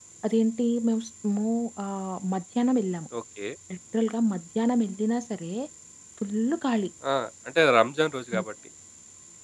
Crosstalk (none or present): none